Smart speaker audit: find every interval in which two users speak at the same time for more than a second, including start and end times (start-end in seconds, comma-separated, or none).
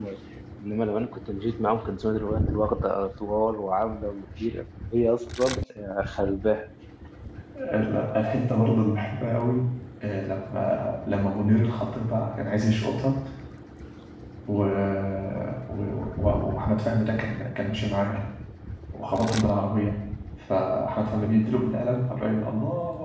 none